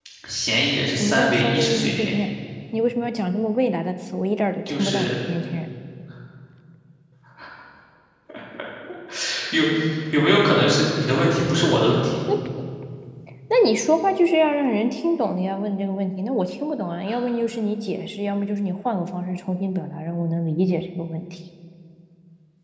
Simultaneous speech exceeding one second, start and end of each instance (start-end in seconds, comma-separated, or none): 0.9-2.1